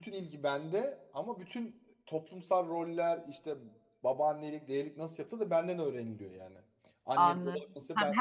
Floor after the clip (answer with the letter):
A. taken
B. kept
A